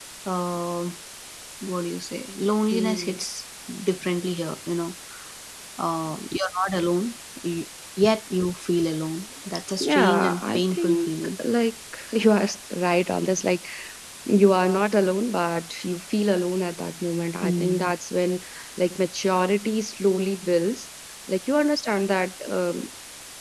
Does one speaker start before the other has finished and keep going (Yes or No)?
Yes